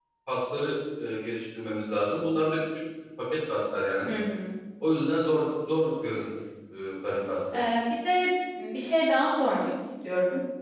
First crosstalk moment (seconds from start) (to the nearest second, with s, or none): none